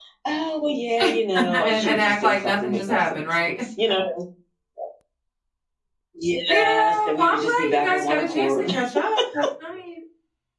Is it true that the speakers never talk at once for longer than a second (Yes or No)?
No